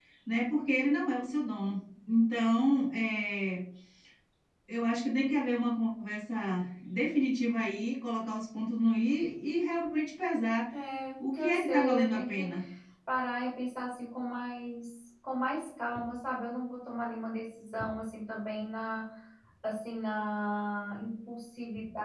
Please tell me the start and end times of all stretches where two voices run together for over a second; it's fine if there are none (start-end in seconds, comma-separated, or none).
11.2-12.5